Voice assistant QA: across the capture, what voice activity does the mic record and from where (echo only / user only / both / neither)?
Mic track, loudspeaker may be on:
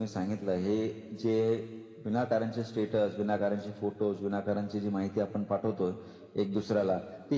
echo only